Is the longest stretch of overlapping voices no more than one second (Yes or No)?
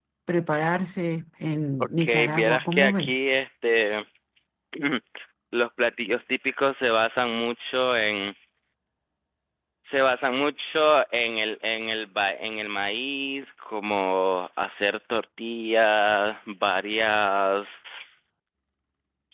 No